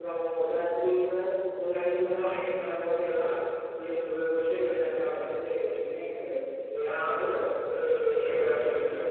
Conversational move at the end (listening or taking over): listening